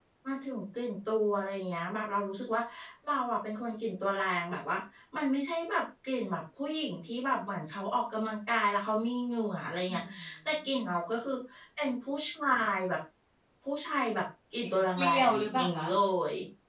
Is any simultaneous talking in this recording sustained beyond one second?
Yes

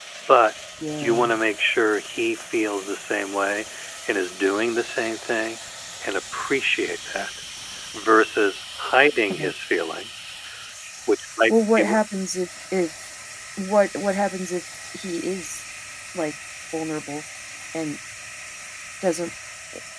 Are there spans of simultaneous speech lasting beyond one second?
No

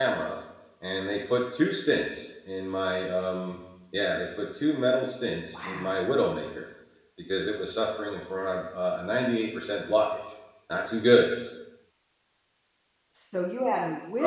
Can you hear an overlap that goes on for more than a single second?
No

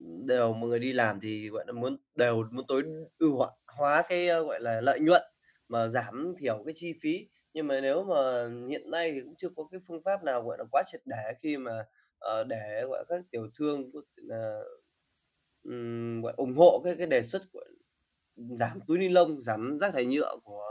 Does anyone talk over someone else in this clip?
No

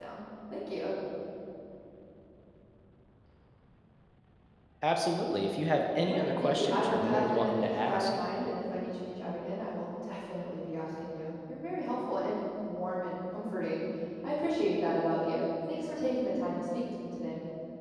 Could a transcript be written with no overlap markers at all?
No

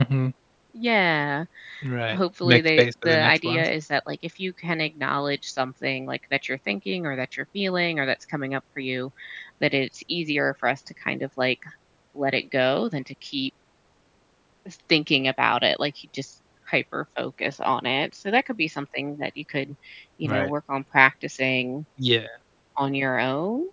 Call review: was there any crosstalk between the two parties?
Yes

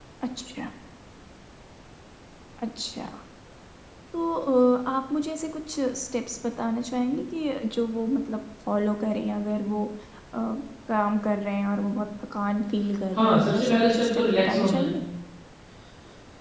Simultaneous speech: Yes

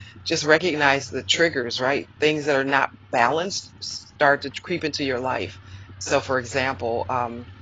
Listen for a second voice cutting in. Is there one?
No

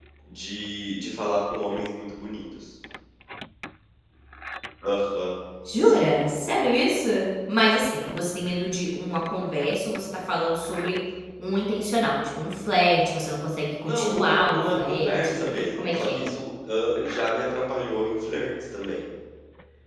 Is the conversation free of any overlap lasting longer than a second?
No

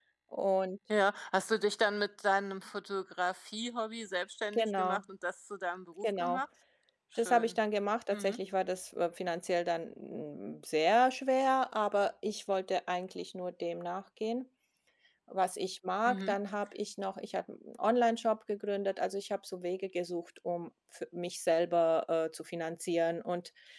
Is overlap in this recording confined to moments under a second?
Yes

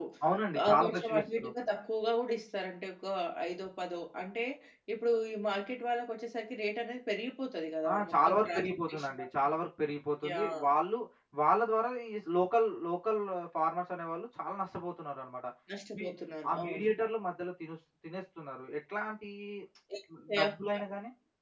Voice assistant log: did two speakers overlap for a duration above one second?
Yes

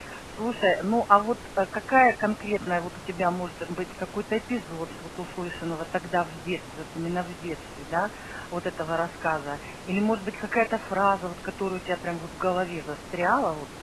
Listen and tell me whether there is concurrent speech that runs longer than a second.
No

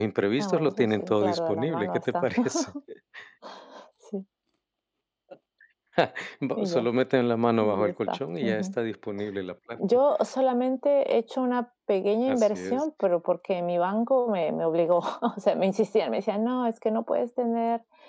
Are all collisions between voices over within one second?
No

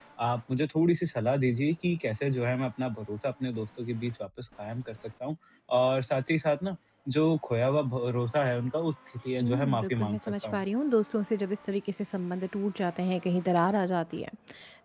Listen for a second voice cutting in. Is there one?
Yes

